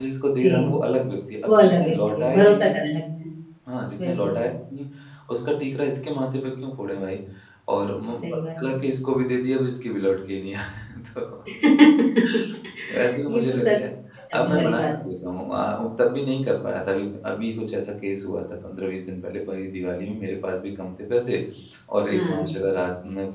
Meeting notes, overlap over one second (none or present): present